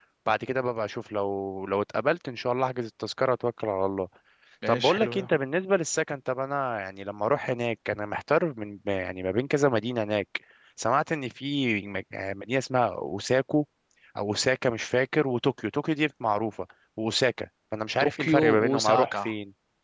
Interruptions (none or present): present